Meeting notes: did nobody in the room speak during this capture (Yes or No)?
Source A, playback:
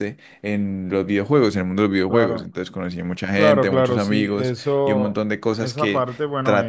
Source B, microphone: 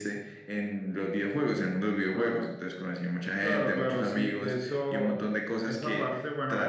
Yes